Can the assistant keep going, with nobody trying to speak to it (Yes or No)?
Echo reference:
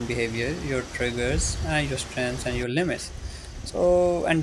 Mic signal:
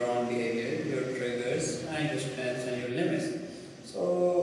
Yes